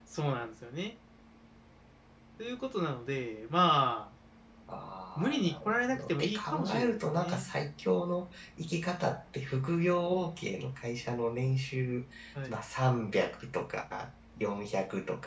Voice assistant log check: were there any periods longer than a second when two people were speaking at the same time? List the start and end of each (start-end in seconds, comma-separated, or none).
5.2-7.5